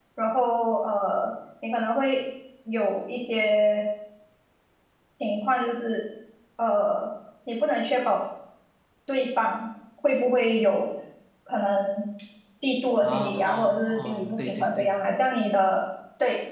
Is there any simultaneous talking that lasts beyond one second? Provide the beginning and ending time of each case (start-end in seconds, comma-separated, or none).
13.0-14.9